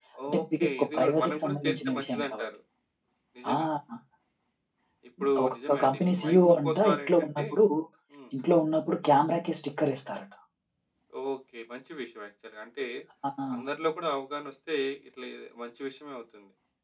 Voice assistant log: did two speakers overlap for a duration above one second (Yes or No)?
Yes